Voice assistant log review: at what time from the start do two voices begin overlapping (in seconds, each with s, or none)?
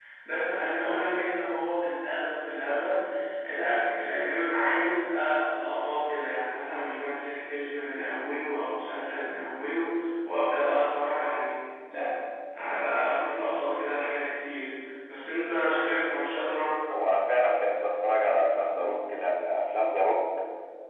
none